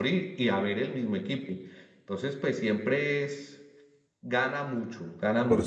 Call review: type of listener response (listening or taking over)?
listening